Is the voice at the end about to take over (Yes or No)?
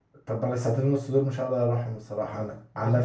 Yes